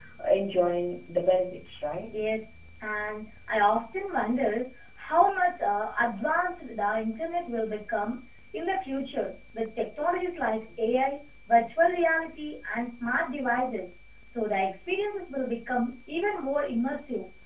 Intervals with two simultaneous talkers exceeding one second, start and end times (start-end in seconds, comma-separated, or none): none